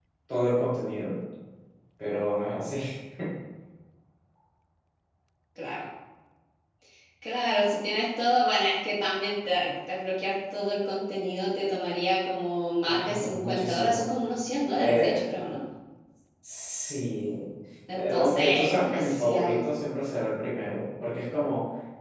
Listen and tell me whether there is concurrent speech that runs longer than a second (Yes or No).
Yes